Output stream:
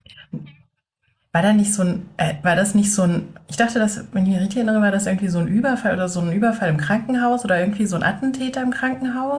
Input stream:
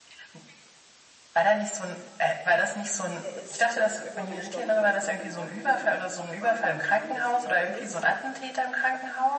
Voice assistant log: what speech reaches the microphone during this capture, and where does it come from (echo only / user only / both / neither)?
both